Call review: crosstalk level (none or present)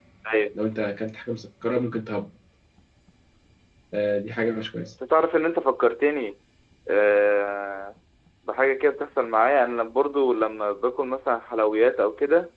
none